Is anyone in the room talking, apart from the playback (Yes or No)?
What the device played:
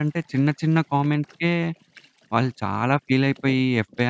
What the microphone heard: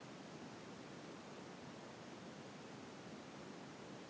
No